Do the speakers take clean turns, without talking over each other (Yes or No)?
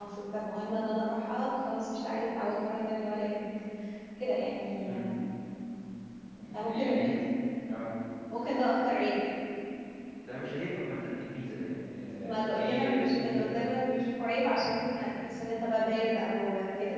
No